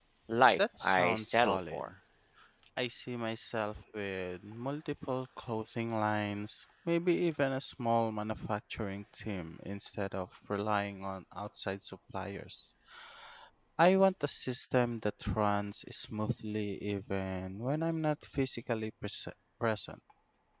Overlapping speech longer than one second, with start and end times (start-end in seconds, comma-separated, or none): 0.6-1.8